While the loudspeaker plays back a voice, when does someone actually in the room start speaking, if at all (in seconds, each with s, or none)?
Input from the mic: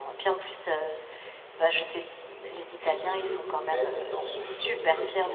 2.8 s